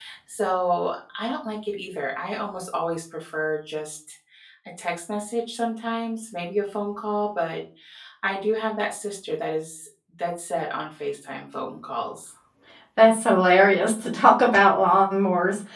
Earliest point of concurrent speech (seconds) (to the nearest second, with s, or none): none